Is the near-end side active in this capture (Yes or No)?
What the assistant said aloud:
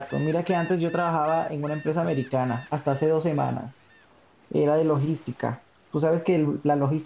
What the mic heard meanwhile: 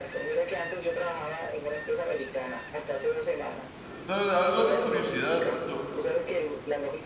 Yes